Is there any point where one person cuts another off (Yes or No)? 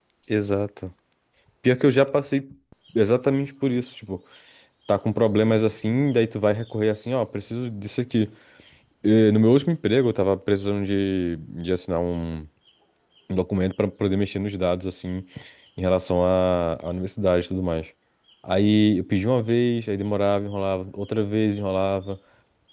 No